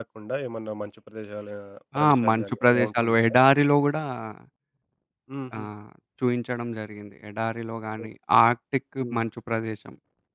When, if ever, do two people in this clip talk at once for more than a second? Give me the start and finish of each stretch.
2.0-3.4

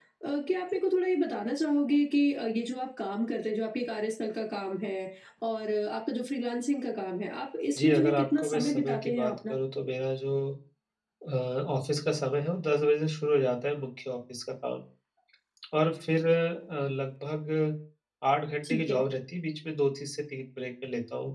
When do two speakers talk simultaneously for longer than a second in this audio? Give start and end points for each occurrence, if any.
7.8-9.5

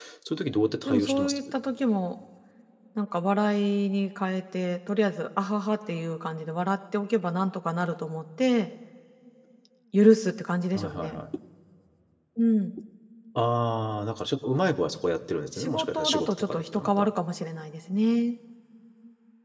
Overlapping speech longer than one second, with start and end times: 15.6-17.1

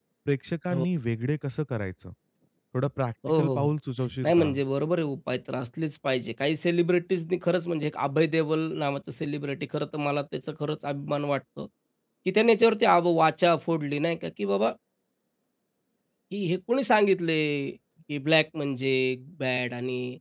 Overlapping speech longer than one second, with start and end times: none

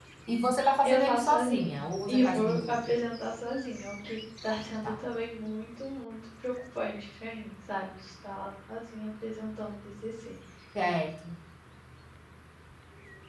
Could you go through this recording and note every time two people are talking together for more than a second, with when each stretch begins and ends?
0.8-3.0

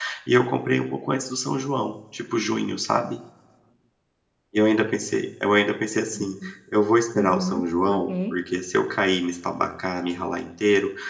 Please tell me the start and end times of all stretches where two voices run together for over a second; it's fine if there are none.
7.2-8.4

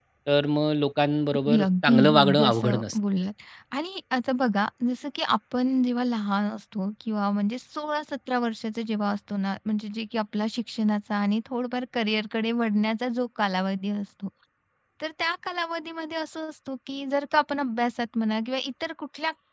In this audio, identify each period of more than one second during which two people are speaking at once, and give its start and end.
1.5-3.0

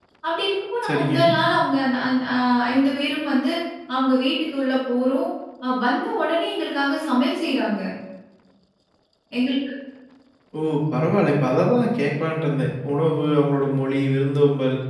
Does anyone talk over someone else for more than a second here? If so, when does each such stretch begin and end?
none

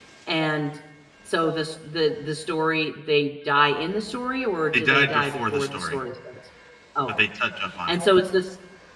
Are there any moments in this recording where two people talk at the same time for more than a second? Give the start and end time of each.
4.7-6.0

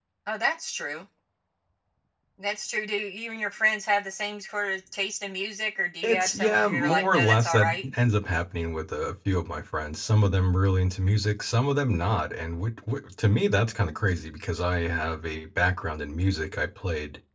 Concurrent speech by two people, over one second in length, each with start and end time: 6.0-7.8

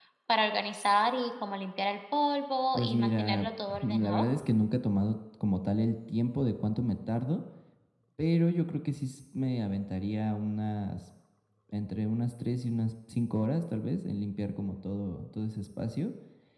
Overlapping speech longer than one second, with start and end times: 2.7-4.2

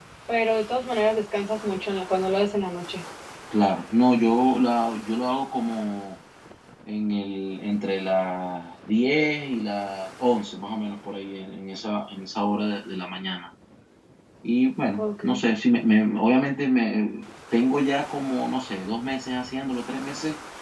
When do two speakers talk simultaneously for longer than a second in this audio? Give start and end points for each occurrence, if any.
none

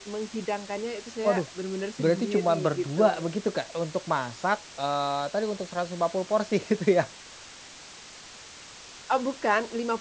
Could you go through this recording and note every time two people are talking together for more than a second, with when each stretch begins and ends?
2.0-3.2

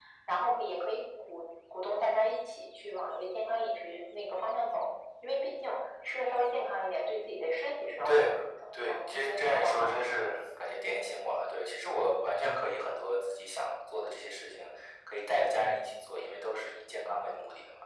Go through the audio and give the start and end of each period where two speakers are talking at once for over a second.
8.9-10.2

